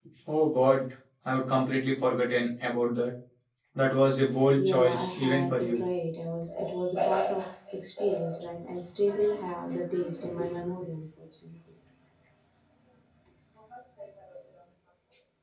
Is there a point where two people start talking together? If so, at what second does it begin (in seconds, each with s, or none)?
4.6 s